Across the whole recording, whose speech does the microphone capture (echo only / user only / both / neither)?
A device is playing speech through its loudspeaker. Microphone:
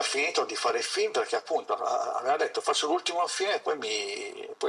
echo only